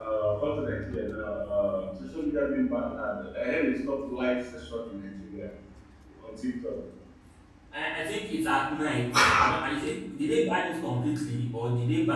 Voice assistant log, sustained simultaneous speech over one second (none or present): none